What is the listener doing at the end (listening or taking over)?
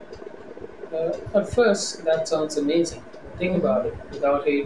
listening